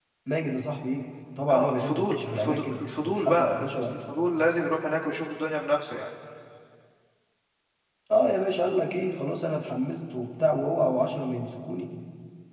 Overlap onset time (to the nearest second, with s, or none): 1 s